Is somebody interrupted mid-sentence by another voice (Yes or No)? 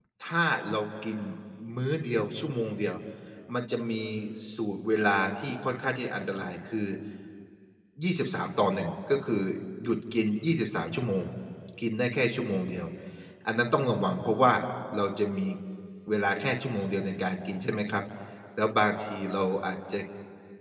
No